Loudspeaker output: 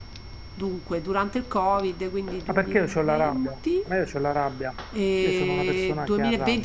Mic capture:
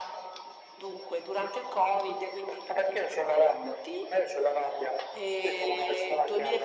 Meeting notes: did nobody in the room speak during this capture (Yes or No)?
Yes